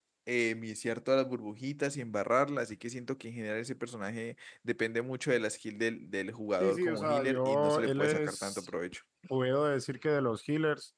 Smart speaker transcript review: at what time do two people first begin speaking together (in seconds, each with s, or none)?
6.6 s